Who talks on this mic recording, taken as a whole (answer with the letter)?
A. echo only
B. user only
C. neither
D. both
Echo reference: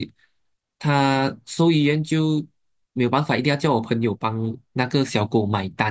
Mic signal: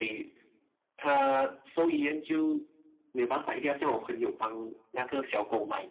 A